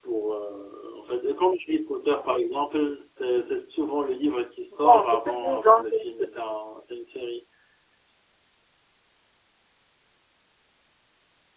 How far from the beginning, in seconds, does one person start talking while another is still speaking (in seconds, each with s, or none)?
4.7 s